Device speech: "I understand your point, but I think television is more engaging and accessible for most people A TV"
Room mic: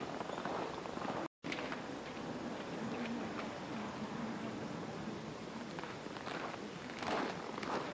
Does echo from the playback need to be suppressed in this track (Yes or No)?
No